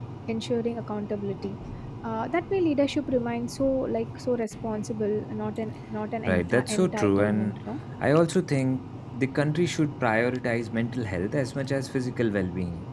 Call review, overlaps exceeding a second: present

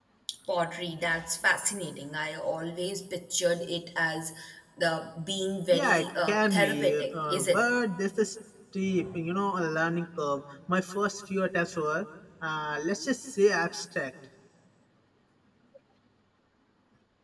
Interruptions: present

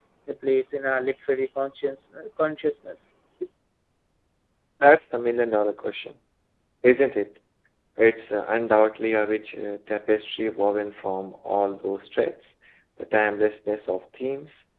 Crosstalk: none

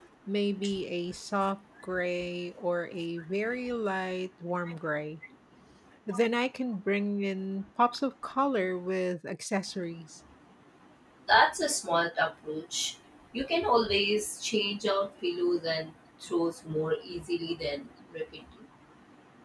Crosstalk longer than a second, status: none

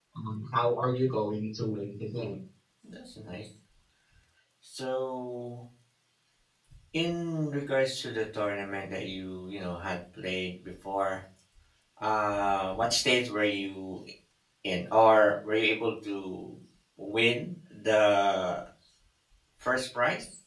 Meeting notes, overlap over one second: none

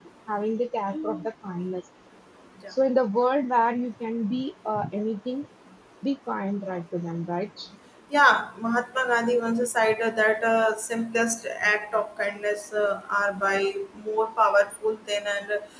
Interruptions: none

